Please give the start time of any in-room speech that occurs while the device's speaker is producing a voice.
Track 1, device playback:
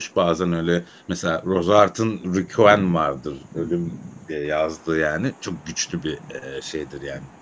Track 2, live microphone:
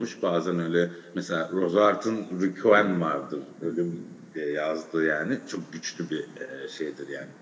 none

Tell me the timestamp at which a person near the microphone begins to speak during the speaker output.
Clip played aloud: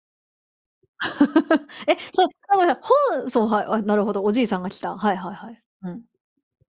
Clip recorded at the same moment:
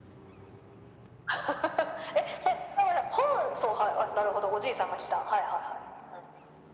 none

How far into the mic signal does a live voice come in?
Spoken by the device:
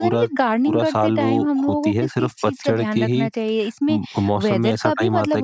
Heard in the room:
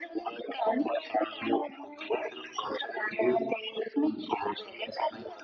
none

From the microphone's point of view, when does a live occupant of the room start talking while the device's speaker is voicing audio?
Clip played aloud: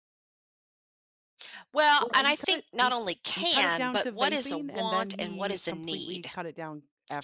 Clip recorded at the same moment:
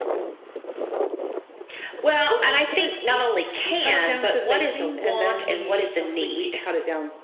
none

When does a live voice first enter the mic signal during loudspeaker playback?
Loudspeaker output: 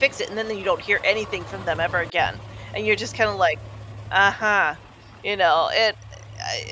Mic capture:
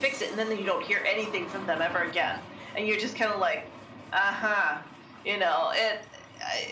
none

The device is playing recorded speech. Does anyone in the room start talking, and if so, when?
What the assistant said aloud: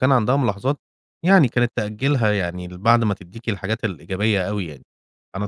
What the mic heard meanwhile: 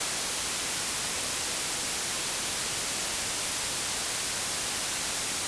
none

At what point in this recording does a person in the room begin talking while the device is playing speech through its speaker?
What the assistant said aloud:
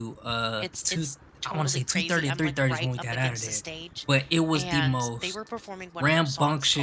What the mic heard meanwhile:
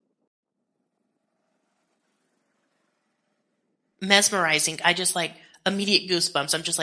4 s

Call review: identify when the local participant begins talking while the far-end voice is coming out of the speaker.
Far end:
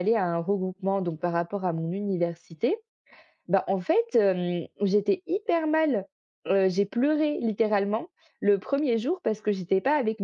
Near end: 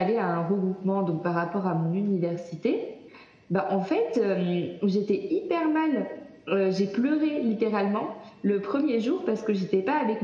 none

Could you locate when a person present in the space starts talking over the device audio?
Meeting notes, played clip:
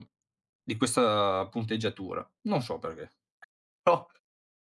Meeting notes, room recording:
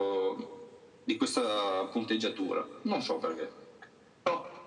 none

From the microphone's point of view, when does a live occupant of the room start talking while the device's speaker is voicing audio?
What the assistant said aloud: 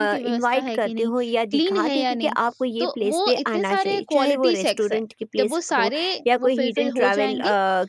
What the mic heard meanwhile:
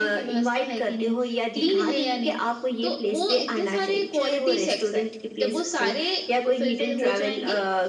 none

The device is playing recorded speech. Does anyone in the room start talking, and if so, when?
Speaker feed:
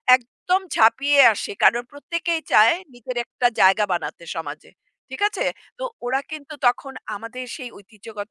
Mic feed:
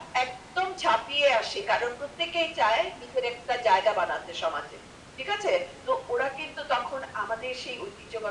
none

